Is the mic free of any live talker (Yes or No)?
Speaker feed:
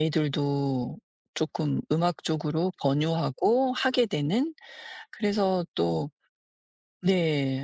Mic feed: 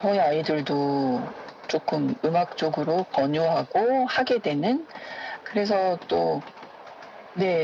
Yes